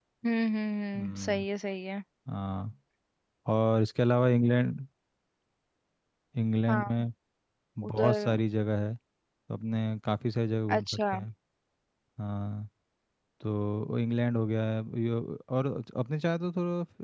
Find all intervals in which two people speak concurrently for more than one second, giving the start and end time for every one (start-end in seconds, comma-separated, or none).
none